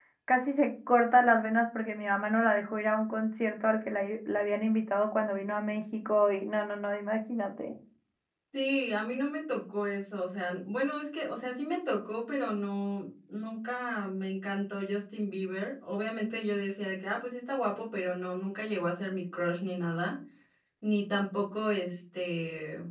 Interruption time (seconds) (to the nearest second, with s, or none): none